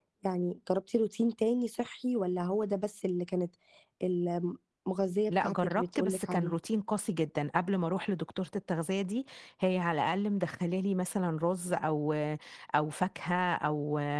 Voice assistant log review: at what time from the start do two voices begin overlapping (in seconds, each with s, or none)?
5.3 s